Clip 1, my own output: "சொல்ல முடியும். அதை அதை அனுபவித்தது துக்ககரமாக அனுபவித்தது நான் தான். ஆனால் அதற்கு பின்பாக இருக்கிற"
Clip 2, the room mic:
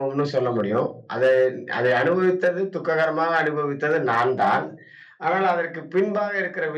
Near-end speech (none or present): none